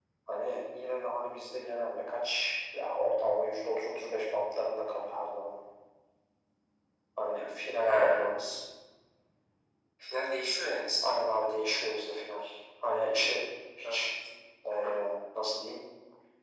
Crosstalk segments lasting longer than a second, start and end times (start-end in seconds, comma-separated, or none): none